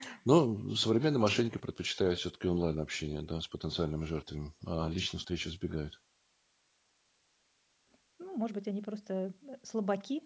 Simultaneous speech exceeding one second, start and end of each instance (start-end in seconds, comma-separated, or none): none